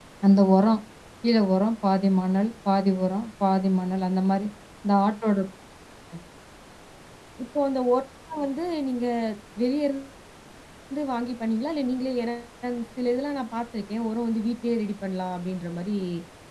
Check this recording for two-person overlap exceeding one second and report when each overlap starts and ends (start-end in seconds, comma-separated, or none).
none